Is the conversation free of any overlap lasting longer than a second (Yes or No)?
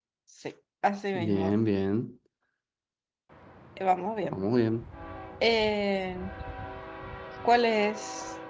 Yes